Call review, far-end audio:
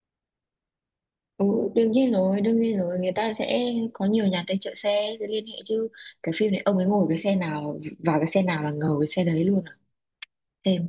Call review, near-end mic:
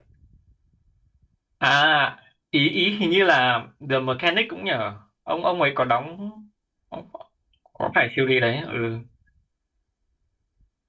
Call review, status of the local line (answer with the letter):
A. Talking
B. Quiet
A